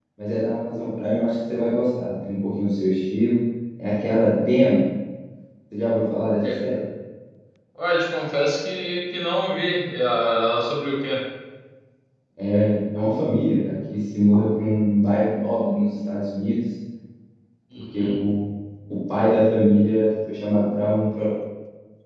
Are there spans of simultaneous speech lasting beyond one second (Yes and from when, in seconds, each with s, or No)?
No